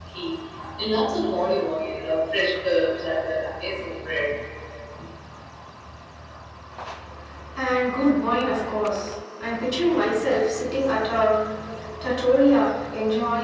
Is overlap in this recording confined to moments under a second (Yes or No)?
Yes